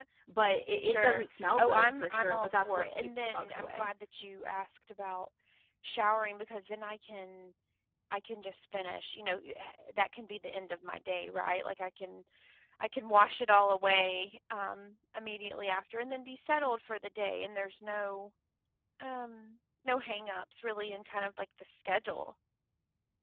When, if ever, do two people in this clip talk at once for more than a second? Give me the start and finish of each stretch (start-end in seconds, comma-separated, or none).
0.8-3.9